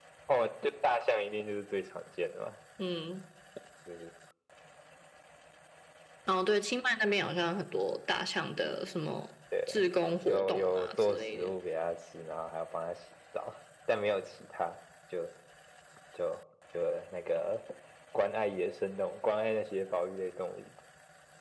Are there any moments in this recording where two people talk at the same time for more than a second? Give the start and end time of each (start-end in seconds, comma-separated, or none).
10.2-11.5